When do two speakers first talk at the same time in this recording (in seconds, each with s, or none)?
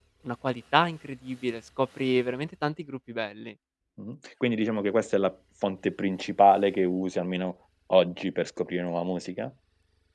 none